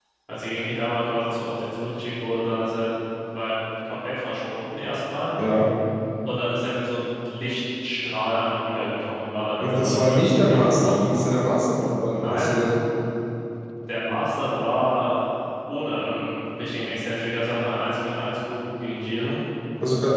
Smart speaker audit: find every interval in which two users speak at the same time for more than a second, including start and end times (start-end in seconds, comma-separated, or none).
9.6-11.0